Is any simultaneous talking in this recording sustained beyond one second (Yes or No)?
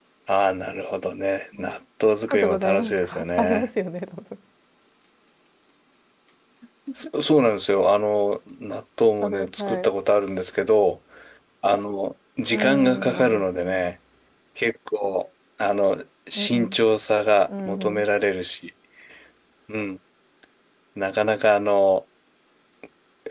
Yes